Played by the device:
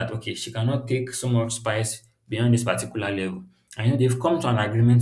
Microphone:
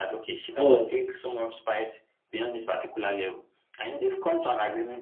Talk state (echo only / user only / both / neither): both